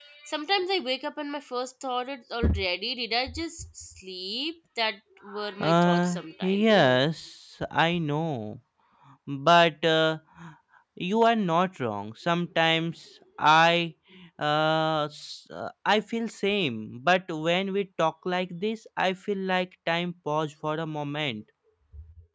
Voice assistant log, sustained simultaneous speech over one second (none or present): present